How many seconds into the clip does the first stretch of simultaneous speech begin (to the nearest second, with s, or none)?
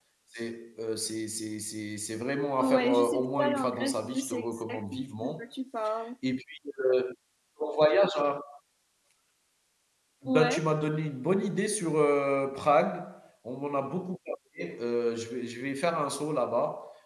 3 s